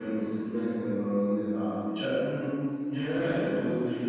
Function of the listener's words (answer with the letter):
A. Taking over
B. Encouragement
B